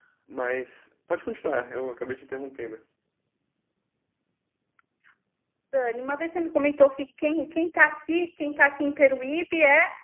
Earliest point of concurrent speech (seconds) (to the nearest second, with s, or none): none